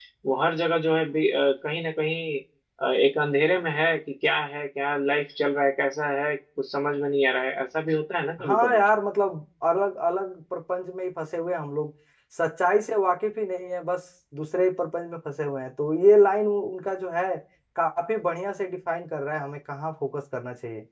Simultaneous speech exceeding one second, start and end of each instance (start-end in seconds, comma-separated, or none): none